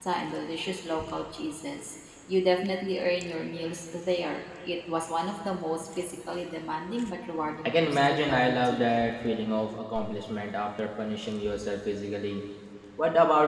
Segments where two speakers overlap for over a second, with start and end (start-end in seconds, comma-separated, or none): 7.6-9.1